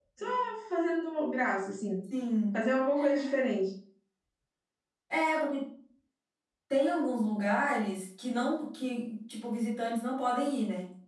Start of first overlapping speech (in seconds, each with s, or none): none